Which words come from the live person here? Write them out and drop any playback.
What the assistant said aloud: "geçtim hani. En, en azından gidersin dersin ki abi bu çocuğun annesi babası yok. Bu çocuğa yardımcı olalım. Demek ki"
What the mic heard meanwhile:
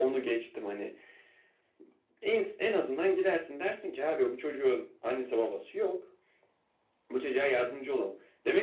none

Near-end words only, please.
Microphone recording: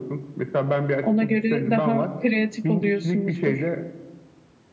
Ona göre daha kreatif oluyorsunuzdur.

